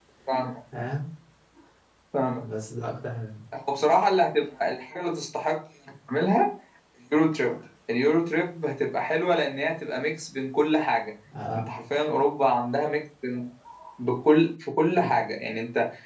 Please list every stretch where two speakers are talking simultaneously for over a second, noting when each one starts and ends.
none

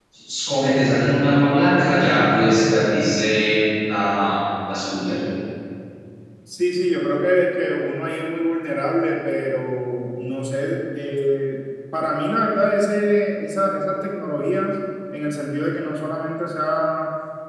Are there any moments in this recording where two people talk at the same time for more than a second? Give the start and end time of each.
none

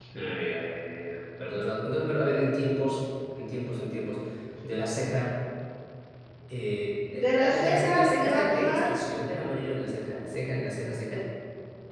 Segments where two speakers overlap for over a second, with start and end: 7.1-8.8

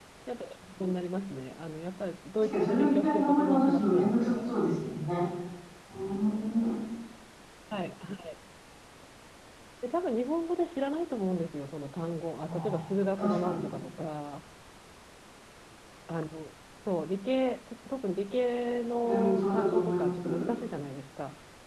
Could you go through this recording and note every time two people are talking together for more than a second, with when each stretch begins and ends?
2.4-4.6, 19.0-20.5

